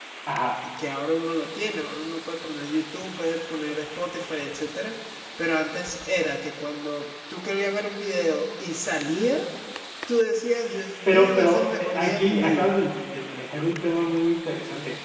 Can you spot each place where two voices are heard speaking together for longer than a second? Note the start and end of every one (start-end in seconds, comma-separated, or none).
11.1-12.8